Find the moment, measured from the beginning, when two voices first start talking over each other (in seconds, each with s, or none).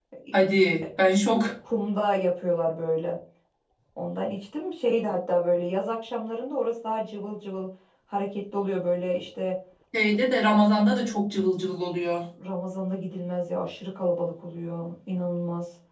none